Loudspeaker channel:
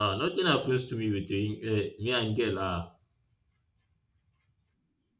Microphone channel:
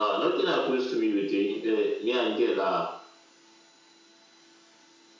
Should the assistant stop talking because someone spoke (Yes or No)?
No